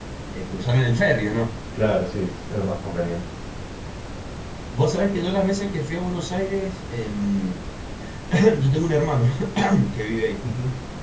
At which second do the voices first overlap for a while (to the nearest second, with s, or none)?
none